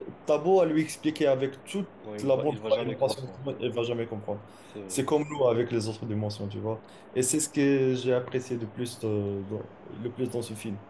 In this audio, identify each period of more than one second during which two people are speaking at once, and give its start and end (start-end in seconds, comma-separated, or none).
2.2-3.4